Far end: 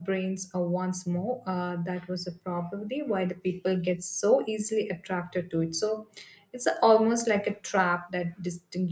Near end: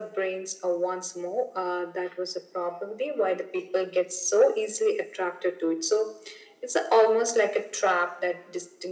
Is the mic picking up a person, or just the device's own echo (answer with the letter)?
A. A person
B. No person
B